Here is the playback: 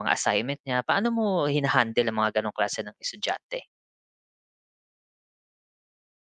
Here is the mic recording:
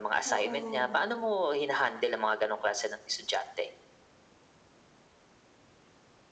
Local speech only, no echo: oo.

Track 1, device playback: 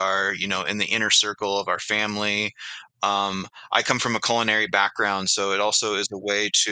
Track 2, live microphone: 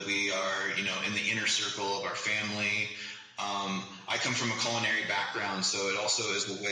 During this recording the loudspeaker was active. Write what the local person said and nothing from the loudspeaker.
none

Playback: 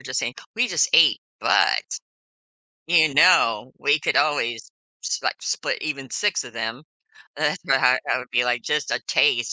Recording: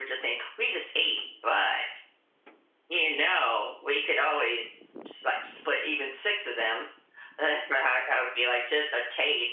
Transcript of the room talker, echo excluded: none

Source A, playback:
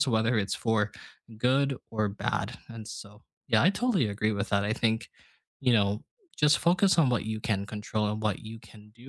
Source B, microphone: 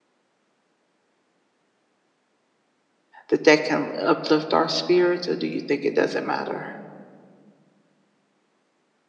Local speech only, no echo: that that can uplift our spirits, or do you think it doesn't matter?

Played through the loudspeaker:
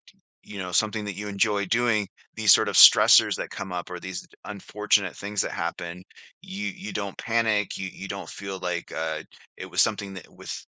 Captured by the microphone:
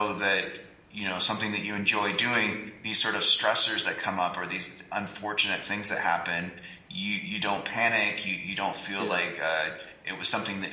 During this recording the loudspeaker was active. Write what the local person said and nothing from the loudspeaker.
yeah.

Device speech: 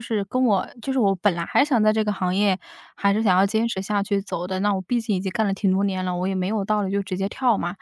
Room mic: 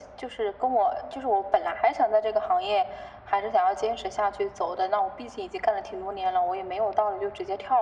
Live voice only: none

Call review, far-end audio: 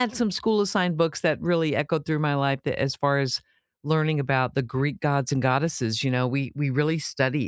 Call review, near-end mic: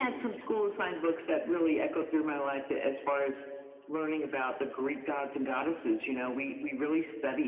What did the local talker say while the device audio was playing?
none

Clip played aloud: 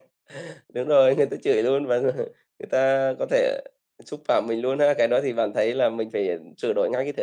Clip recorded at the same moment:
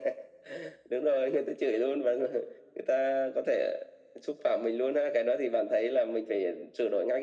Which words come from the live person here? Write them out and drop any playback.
none

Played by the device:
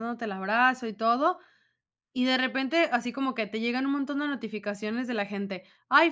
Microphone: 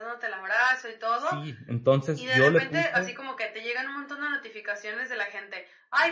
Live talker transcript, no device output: sí, entonces yo le puse,

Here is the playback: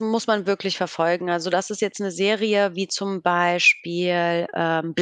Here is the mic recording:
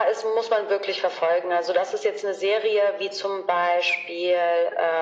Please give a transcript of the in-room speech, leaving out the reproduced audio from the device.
none

